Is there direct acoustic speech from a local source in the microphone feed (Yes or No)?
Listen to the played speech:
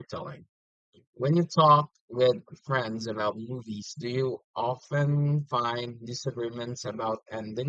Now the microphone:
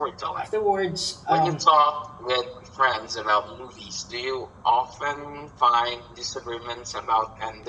Yes